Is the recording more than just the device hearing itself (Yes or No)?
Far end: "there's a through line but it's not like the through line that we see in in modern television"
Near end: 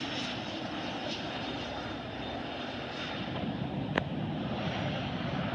No